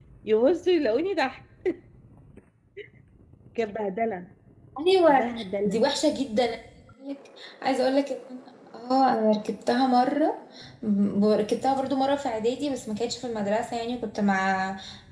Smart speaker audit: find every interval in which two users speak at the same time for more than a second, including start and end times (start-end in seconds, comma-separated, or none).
none